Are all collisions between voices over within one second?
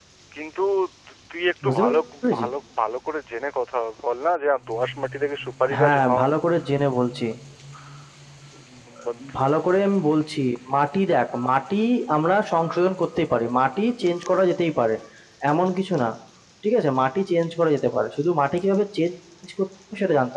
Yes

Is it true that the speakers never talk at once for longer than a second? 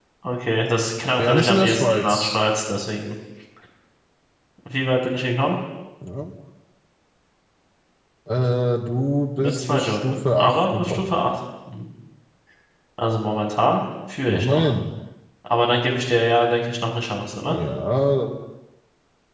No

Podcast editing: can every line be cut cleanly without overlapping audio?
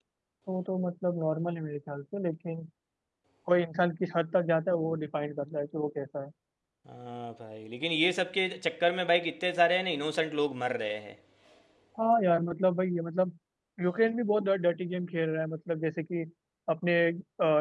Yes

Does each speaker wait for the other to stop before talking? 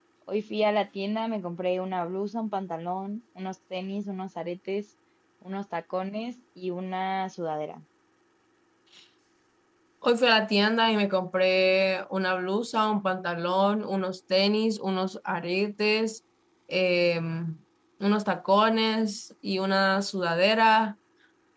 Yes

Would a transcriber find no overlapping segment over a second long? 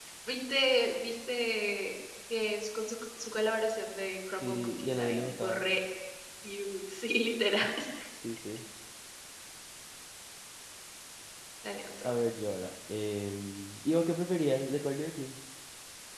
No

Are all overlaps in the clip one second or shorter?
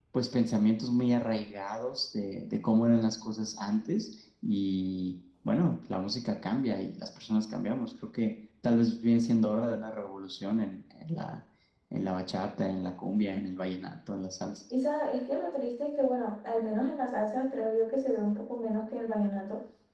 Yes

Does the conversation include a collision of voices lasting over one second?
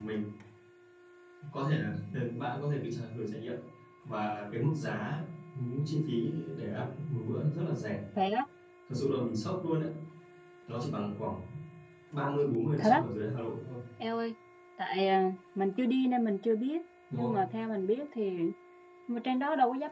No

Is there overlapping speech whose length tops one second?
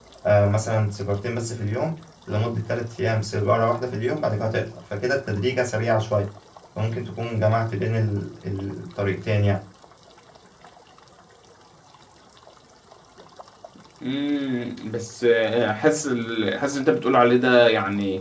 No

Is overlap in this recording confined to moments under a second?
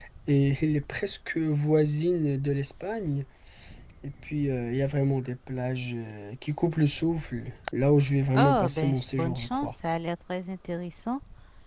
No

